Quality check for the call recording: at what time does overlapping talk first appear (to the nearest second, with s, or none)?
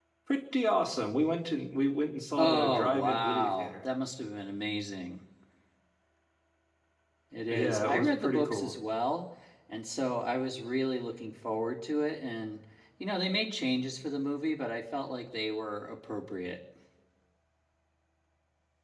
2 s